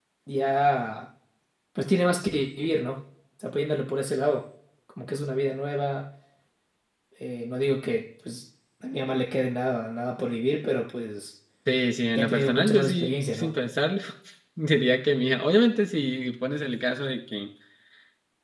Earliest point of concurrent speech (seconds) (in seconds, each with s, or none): 12.2 s